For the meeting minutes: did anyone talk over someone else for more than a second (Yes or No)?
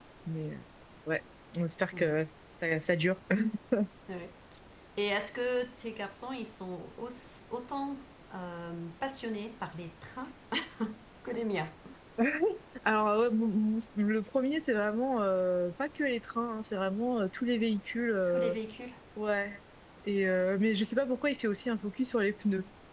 No